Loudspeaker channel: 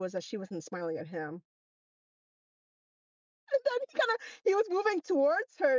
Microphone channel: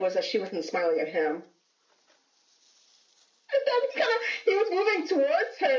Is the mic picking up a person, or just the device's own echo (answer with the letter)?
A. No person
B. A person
A